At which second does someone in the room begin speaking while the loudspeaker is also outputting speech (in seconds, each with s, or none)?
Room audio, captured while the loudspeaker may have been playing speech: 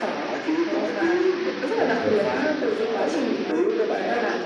1.8 s